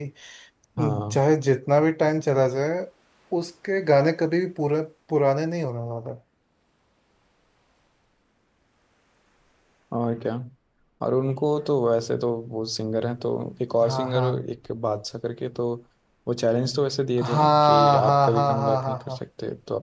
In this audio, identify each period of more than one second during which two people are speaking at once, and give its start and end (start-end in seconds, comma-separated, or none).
17.2-19.2